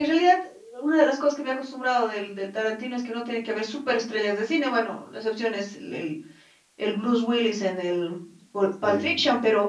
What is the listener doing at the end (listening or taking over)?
listening